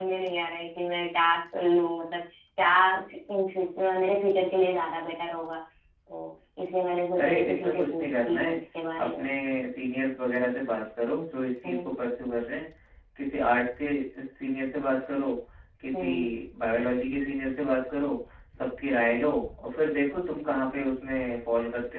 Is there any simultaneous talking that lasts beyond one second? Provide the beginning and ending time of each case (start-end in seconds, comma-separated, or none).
7.2-8.6